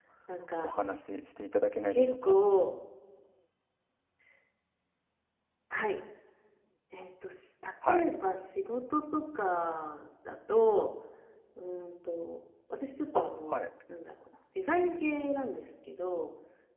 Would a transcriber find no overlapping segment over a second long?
Yes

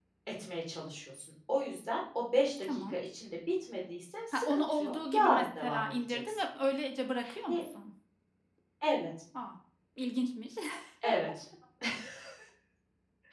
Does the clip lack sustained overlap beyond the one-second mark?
No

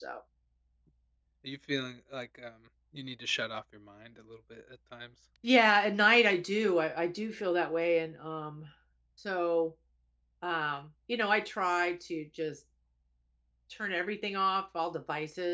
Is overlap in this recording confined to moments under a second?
Yes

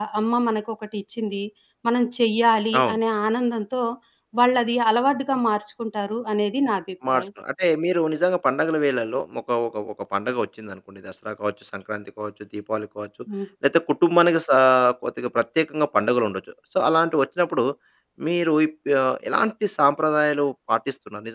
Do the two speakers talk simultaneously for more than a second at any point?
No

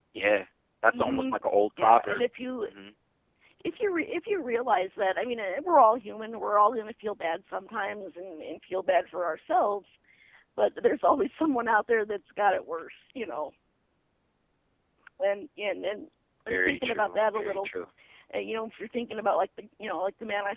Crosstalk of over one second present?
Yes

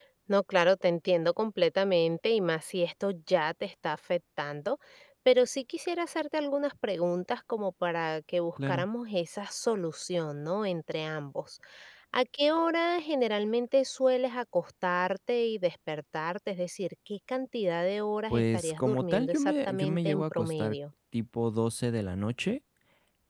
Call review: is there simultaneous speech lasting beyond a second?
Yes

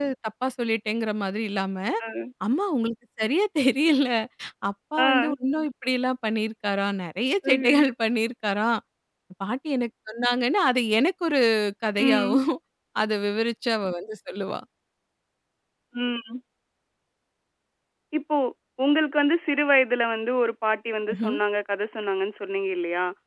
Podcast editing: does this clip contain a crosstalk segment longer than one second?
No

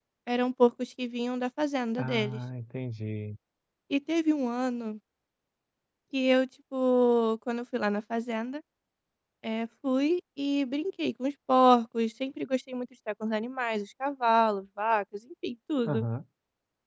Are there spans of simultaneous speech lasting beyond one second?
No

